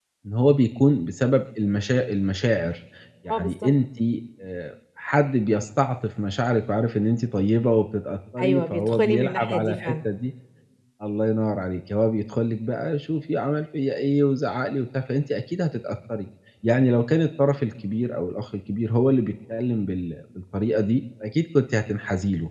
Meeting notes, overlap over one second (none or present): present